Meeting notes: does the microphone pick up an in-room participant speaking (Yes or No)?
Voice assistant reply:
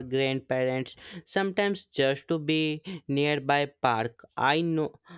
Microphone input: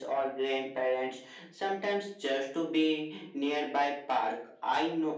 No